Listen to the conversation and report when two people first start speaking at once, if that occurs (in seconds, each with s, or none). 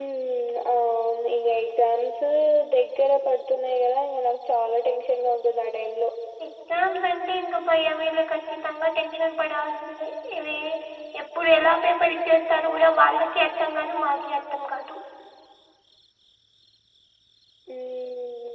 none